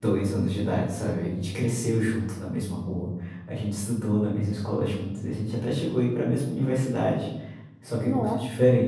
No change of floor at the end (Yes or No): Yes